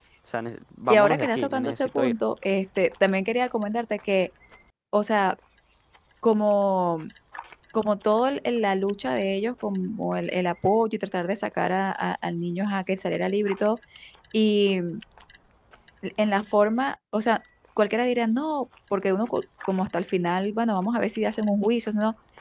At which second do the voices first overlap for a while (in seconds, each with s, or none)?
0.9 s